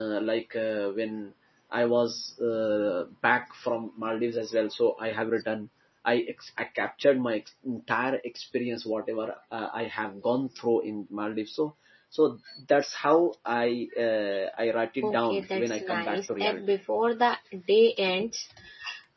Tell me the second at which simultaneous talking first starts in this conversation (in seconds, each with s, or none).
15.0 s